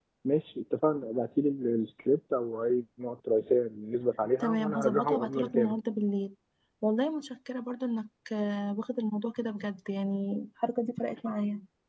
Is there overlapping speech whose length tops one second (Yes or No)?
Yes